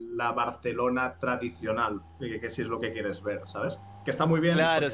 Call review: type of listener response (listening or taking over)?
taking over